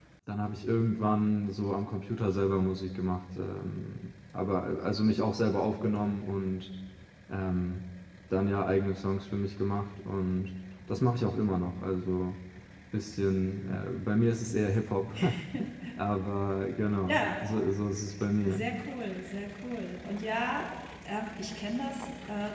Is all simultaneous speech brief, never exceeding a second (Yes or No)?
Yes